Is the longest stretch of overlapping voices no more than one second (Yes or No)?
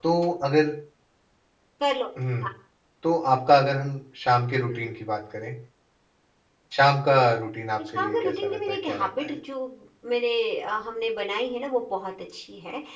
No